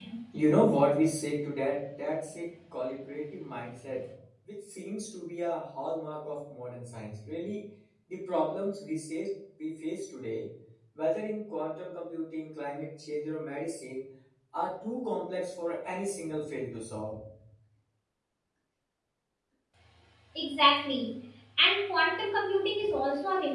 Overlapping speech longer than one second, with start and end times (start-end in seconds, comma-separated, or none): none